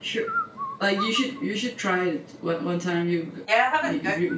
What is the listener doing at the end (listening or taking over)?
taking over